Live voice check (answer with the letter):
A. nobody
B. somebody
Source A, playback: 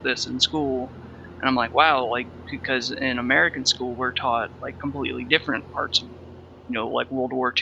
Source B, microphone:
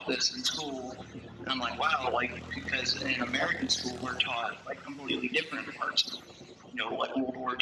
A